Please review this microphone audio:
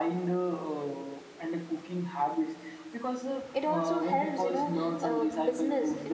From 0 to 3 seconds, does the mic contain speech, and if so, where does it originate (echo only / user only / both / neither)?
echo only